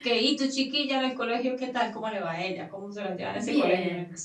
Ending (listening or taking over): taking over